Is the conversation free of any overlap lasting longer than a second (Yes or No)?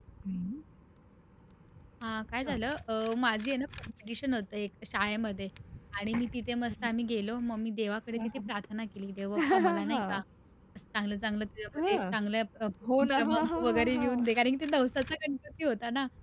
No